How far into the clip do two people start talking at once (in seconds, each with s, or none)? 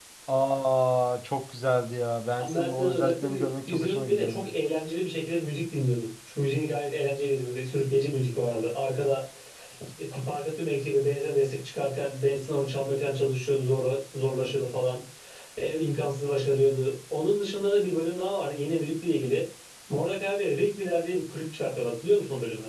2.4 s